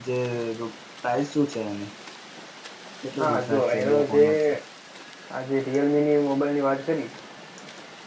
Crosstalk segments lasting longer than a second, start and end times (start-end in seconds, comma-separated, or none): 3.2-4.5